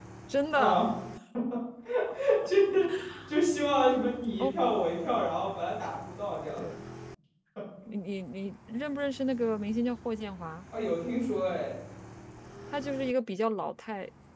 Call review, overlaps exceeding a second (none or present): none